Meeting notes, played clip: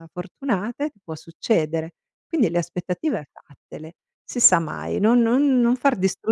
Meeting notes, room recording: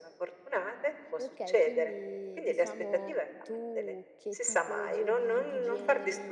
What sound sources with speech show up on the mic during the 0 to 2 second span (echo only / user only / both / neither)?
both